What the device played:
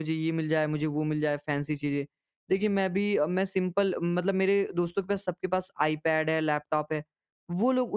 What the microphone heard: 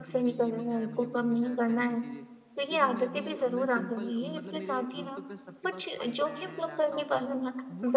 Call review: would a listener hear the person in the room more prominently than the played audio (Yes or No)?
Yes